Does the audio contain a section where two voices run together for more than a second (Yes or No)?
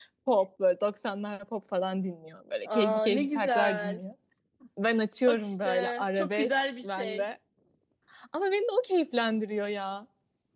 Yes